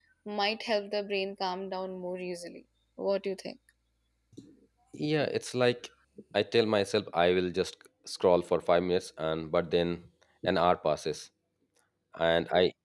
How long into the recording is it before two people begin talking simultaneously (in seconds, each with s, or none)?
none